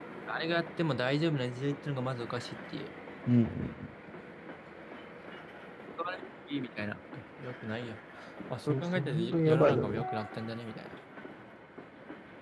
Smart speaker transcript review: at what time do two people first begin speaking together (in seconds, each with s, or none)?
8.7 s